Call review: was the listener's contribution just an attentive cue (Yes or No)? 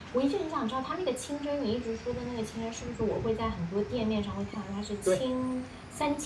Yes